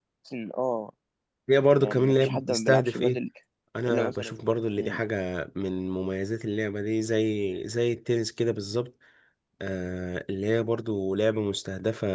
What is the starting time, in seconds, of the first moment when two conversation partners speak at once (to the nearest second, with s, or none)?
2 s